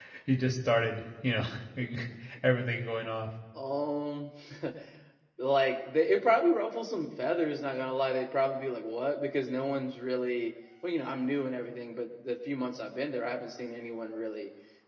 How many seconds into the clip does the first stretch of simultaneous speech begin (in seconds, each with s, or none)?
none